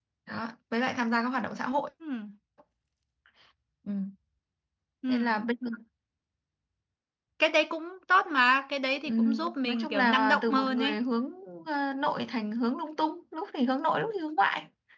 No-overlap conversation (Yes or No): No